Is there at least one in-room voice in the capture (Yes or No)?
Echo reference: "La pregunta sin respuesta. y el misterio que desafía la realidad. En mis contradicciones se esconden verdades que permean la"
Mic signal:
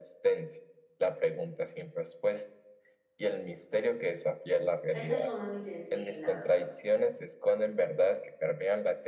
Yes